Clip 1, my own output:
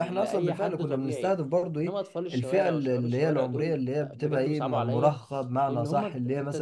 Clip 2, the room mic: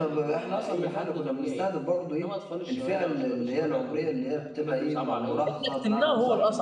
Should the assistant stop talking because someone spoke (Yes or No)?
Yes